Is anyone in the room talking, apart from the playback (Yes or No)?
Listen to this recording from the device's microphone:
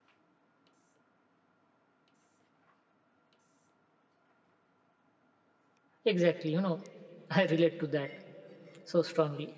Yes